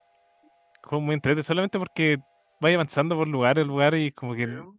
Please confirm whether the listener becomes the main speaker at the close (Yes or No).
No